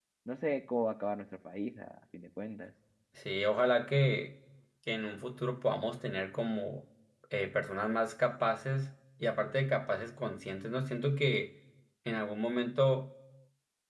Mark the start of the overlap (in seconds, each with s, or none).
none